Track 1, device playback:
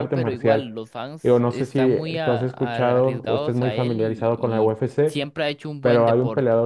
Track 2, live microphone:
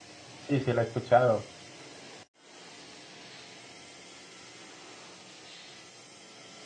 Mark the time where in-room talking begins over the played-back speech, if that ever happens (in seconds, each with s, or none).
0.4 s